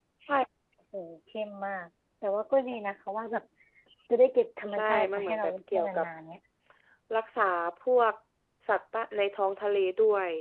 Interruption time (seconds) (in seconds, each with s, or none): 4.7 s